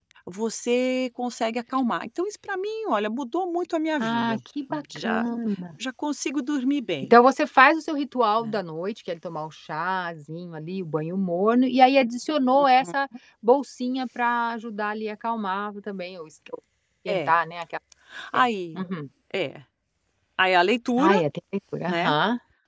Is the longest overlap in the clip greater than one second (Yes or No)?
No